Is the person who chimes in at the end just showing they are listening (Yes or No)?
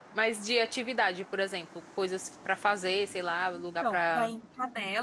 No